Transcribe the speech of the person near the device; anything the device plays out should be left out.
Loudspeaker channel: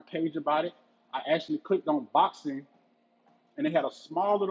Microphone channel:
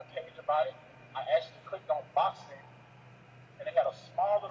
none

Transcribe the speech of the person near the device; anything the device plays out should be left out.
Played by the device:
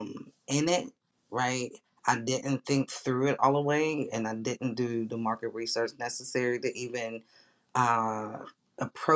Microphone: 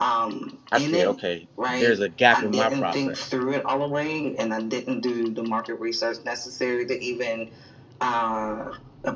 I said, okay, there's a gap in my process

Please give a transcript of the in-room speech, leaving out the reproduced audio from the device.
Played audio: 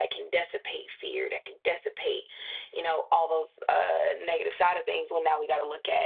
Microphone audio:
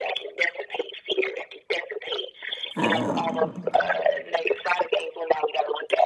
um

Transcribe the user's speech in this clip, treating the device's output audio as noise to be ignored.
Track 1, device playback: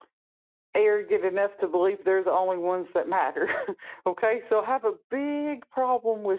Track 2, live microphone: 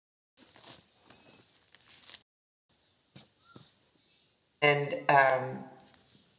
and um,

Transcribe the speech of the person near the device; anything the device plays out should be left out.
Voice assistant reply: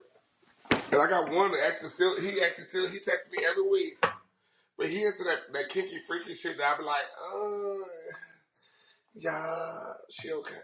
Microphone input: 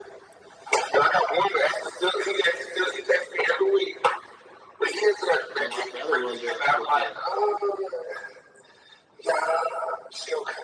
I know my battery run down quick now.

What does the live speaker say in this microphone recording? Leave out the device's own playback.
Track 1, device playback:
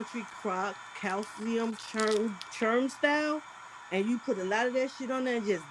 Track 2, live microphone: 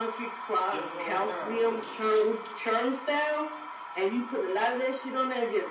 Yoko, what time is it?

